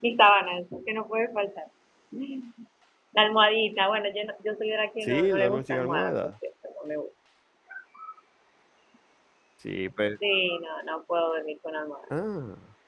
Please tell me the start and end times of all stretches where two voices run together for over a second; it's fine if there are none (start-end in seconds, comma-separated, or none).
5.0-6.3